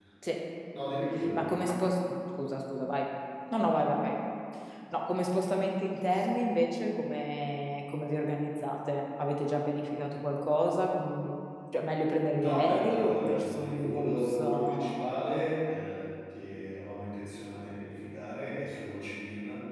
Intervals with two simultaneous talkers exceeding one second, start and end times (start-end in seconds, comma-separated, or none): 12.4-15.0